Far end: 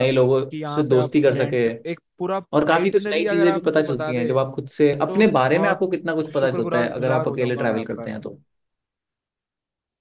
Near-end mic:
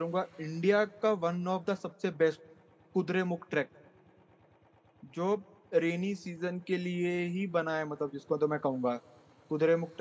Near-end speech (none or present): present